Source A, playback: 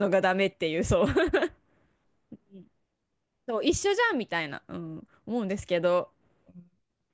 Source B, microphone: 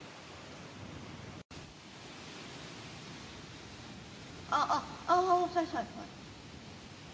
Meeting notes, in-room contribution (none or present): present